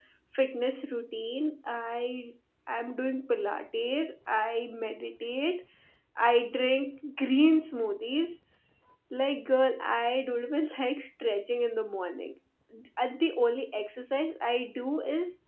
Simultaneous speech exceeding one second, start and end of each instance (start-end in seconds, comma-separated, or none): none